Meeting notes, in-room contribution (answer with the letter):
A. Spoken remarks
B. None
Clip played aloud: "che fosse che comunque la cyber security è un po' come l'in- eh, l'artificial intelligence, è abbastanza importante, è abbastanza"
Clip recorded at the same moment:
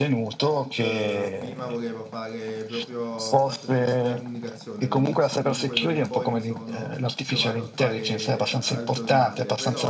A